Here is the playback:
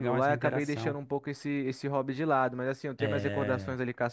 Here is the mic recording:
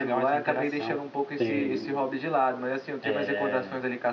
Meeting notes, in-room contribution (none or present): present